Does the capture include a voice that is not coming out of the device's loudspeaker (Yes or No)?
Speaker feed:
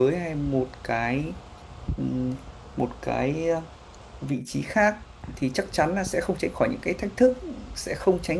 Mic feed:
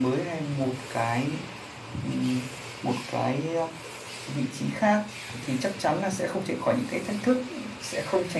No